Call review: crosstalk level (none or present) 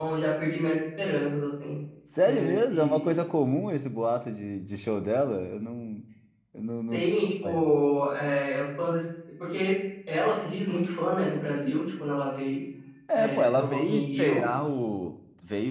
present